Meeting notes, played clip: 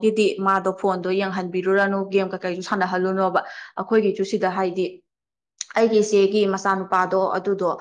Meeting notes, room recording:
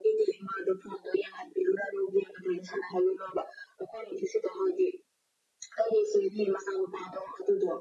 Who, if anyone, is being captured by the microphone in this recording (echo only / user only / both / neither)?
echo only